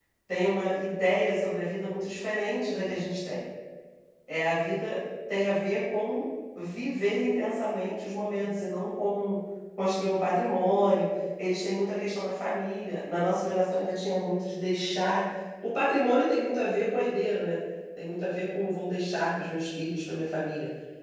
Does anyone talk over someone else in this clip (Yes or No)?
No